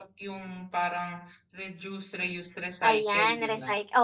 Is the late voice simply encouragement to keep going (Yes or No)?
No